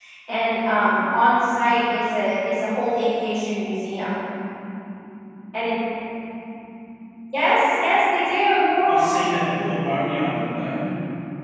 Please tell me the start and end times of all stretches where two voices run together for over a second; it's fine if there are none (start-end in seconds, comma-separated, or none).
none